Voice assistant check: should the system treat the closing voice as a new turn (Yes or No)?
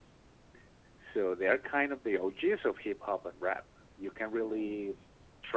No